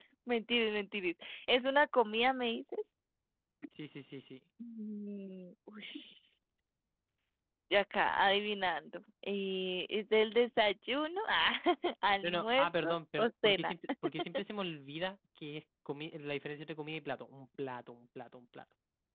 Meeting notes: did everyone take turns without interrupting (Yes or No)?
No